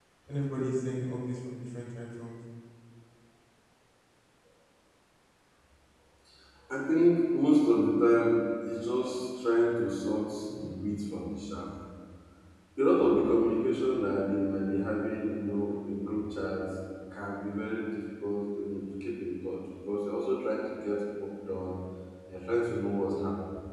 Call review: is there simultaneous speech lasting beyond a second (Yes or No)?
No